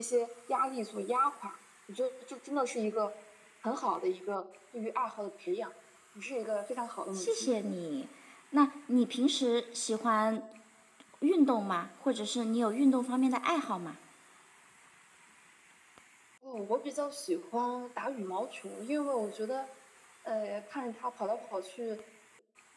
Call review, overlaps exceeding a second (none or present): none